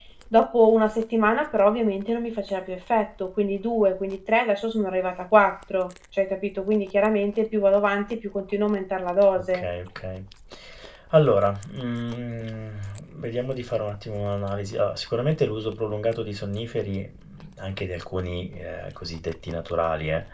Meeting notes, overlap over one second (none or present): none